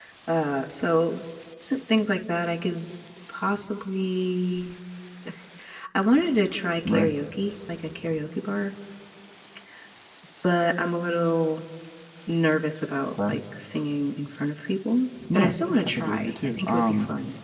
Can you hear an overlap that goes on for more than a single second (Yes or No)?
Yes